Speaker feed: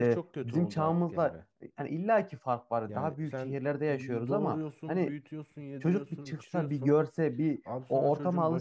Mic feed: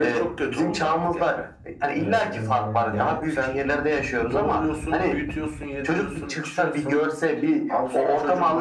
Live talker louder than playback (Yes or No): No